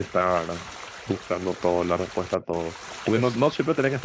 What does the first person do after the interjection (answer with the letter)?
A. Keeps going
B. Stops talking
A